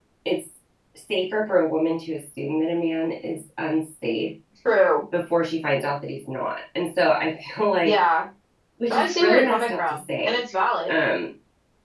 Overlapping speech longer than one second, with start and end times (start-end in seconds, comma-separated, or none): 8.9-10.4